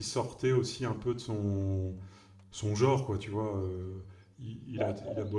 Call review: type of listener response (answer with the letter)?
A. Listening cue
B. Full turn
A